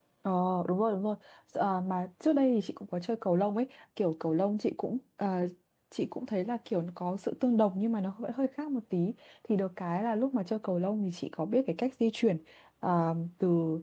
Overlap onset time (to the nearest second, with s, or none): none